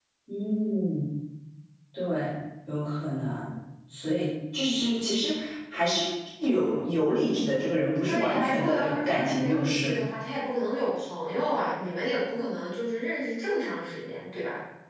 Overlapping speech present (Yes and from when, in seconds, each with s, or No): Yes, from 8.1 s